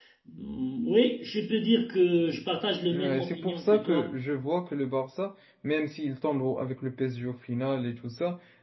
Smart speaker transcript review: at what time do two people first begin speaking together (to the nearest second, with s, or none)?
3 s